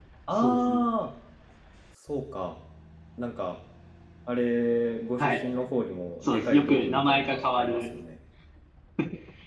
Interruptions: present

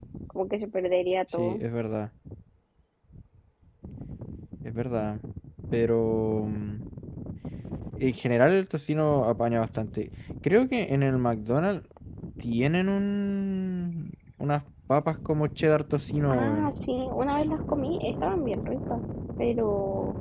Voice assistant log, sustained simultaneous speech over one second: none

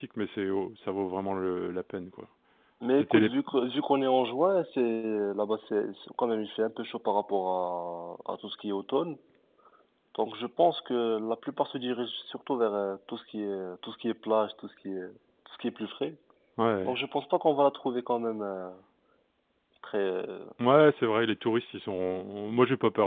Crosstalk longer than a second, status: none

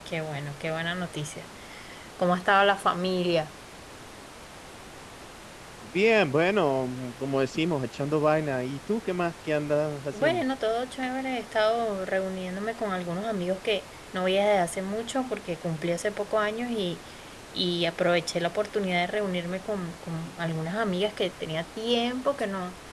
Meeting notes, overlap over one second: none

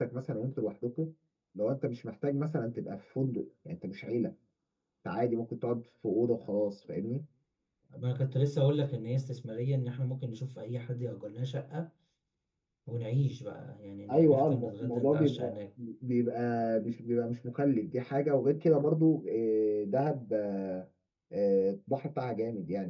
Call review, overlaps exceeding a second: present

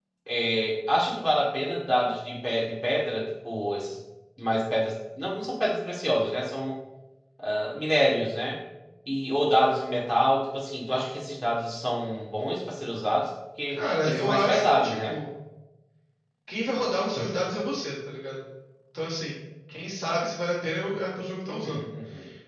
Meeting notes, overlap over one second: present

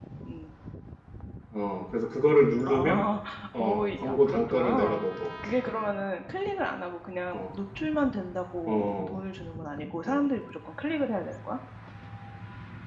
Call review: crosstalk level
present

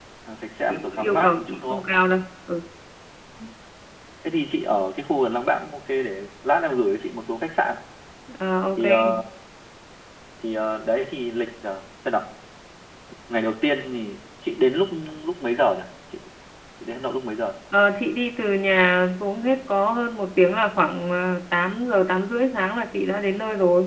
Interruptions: present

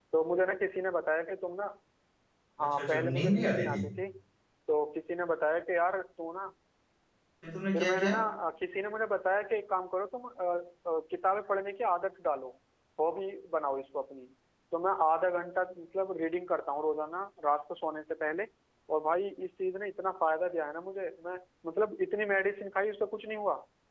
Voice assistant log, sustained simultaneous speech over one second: present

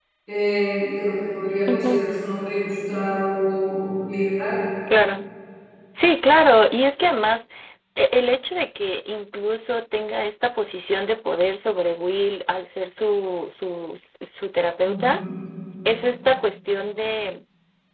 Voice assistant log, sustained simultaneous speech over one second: none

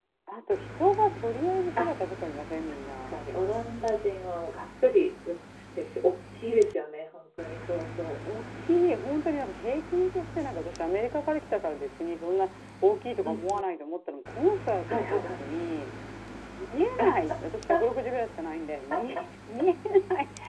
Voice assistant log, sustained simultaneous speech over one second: none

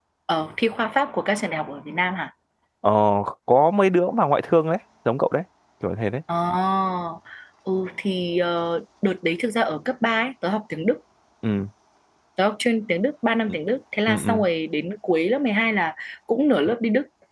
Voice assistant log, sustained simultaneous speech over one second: none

